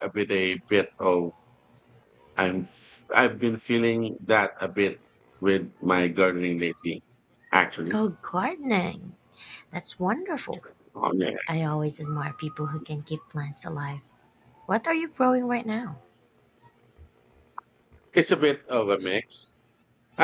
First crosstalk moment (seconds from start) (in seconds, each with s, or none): none